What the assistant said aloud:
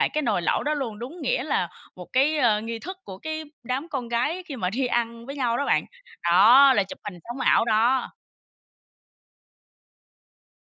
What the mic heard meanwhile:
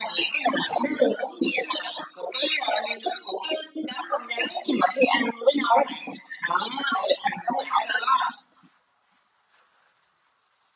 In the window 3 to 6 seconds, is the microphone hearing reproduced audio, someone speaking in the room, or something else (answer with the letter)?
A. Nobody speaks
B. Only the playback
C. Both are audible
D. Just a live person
B